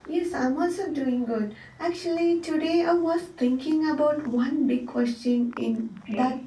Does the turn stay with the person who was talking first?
Yes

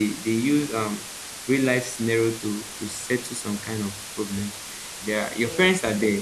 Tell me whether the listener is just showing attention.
Yes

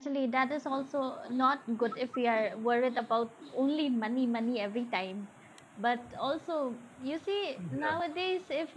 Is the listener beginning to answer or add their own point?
No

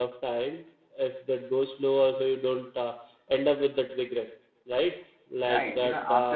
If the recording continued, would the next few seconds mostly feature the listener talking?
Yes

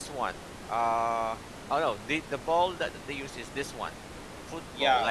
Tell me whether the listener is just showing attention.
No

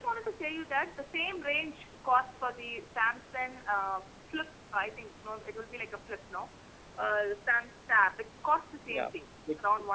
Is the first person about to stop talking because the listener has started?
No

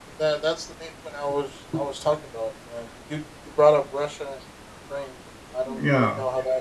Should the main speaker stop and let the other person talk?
No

